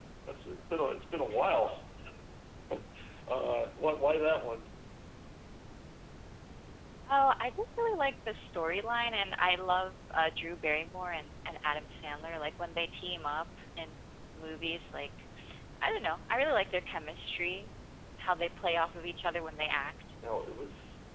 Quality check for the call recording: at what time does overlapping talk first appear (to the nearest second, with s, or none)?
none